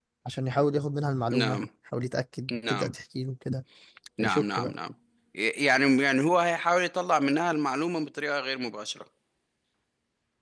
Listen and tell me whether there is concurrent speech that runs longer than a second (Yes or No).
No